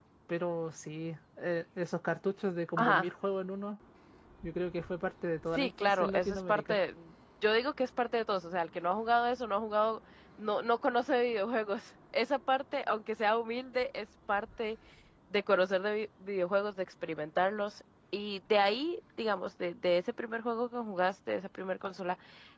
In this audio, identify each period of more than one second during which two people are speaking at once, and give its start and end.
5.5-6.8

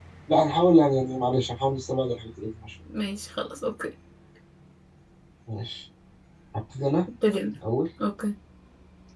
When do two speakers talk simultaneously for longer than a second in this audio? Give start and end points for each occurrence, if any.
none

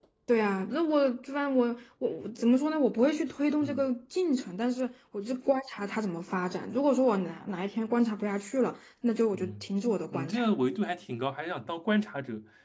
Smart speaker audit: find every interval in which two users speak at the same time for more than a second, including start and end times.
none

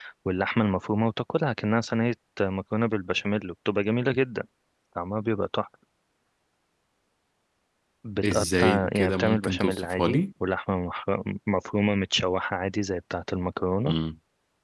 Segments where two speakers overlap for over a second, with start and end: 8.3-10.1

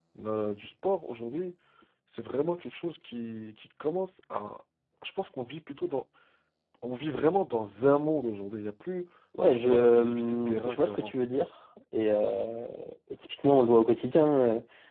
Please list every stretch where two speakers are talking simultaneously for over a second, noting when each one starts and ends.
9.5-11.2

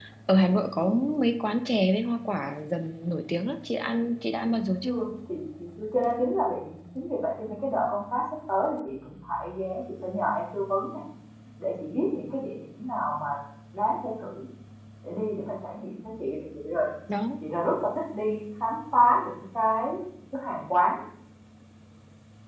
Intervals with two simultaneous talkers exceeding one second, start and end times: none

